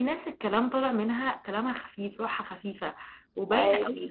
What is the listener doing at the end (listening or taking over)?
listening